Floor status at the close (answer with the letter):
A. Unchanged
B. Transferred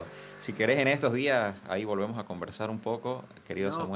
A